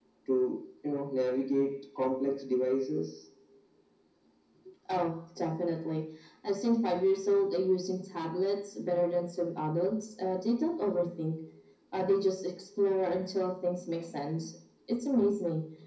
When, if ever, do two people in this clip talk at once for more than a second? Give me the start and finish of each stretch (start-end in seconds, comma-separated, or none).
none